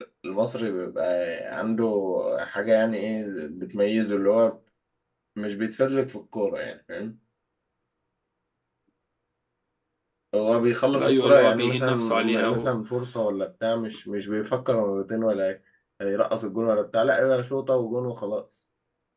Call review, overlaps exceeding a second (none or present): present